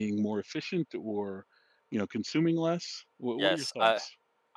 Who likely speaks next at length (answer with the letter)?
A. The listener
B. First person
A